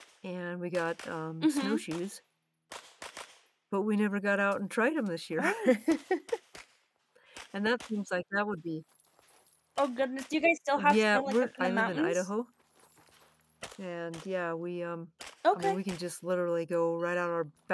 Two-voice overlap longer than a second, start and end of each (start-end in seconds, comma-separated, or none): 10.9-12.3